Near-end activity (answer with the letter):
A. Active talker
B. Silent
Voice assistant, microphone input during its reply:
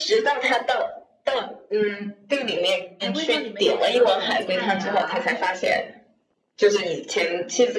A